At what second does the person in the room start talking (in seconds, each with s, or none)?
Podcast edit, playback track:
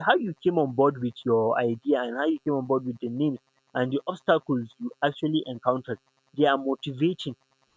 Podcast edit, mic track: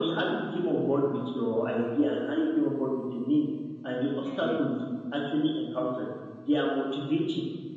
4.2 s